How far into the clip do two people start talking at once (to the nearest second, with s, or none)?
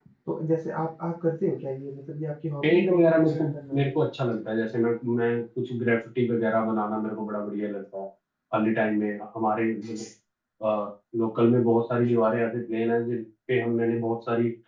3 s